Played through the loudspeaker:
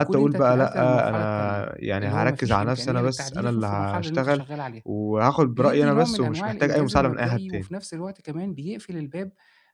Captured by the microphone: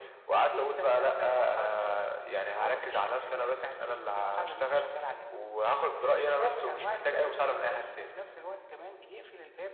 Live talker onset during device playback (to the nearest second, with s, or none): none